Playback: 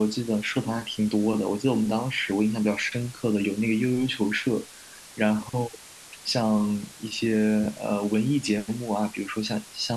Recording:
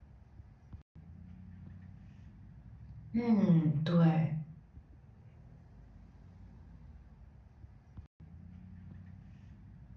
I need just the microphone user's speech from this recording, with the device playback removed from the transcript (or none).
嗯，对。